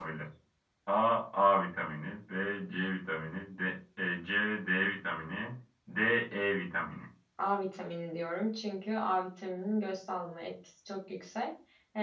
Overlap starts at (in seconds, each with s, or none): none